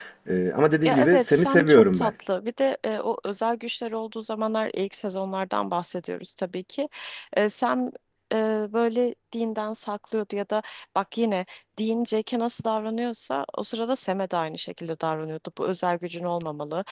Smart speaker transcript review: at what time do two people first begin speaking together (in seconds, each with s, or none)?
0.8 s